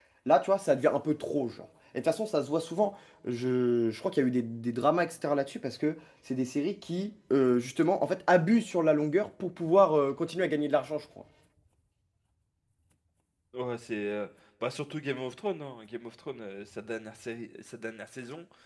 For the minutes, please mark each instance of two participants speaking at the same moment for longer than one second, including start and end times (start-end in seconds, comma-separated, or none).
none